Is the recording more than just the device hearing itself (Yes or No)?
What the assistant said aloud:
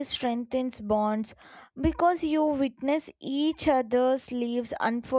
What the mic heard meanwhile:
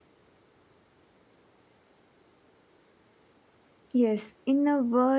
Yes